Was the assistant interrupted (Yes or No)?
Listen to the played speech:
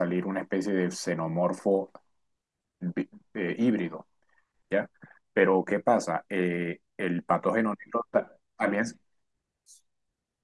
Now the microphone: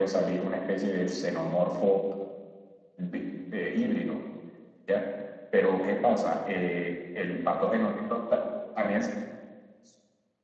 No